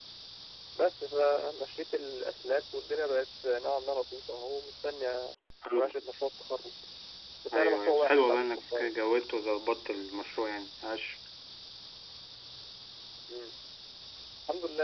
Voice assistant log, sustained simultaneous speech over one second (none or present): present